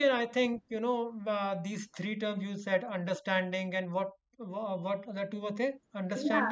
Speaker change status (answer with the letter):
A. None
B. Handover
B